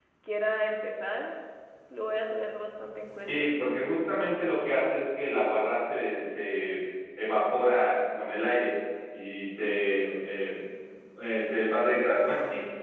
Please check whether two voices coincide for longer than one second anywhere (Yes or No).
No